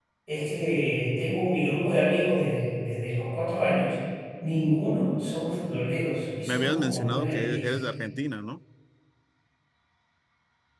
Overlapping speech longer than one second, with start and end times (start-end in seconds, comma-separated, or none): 6.5-7.8